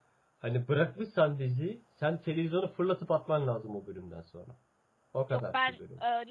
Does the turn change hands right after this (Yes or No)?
Yes